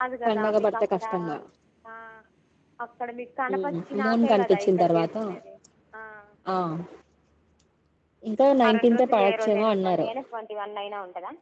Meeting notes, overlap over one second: present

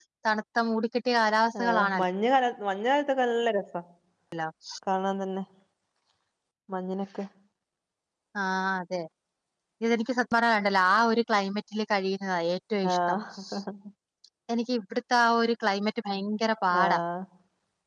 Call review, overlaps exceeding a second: none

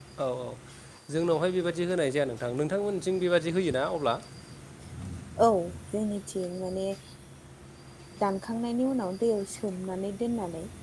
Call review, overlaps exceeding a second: none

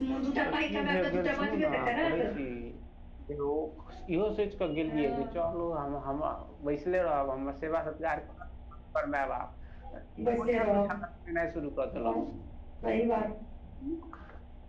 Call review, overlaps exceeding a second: present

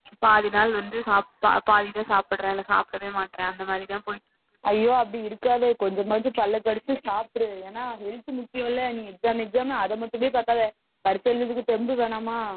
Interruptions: none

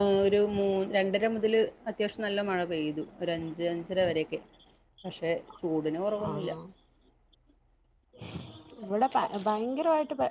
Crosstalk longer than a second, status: none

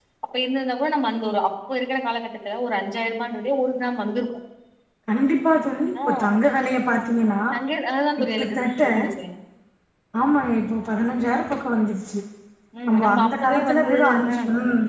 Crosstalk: present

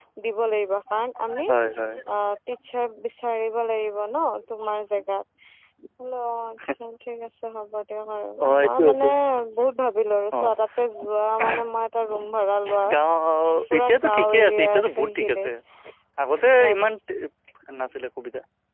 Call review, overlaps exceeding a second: present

